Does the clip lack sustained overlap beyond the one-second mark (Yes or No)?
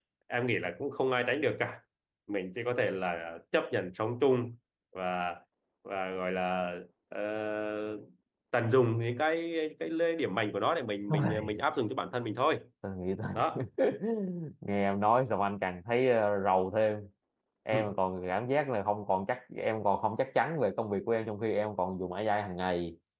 Yes